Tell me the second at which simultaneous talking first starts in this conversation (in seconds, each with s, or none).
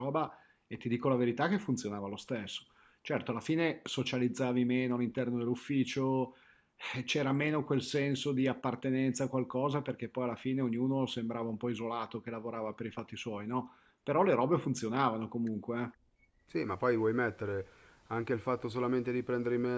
none